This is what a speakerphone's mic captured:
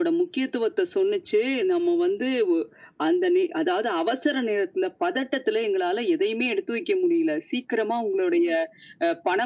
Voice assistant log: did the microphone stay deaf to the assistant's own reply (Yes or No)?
No